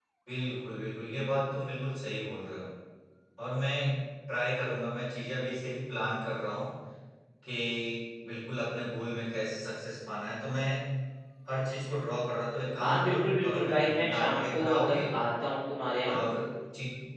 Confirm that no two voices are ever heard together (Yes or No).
No